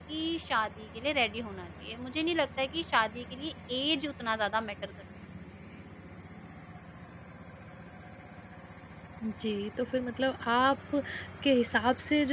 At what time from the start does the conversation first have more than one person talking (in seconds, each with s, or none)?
none